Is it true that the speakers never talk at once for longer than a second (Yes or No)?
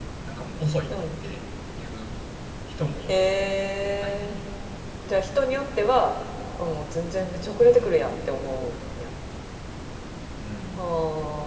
Yes